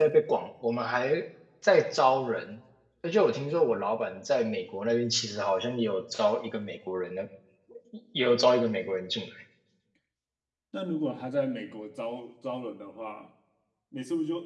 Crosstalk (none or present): none